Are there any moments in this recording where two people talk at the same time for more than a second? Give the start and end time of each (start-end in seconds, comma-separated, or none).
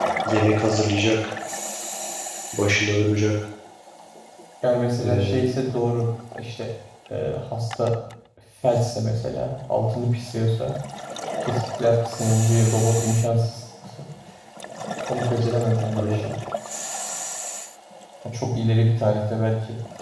none